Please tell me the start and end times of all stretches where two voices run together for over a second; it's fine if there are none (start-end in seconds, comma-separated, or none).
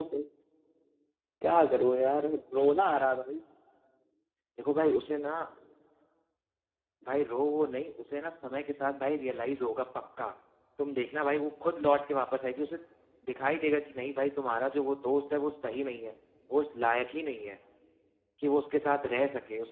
none